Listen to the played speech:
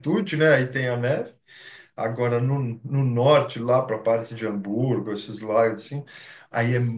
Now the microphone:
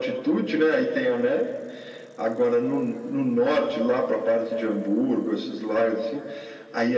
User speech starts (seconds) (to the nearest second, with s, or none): none